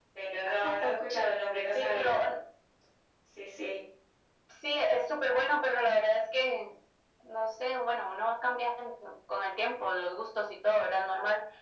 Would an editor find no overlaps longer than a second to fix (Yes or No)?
Yes